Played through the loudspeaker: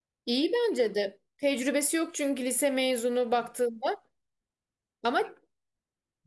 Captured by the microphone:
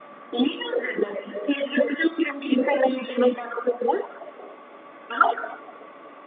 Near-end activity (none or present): none